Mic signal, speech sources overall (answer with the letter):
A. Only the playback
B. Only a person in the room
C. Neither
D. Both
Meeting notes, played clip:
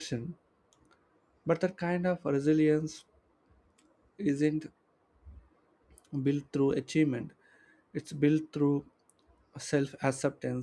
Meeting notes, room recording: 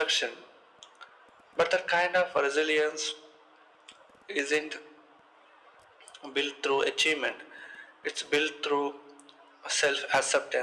A